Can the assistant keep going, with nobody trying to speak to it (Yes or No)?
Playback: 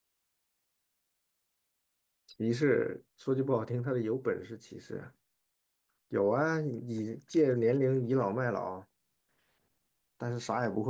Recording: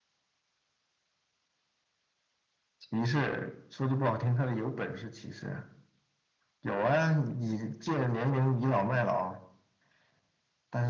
Yes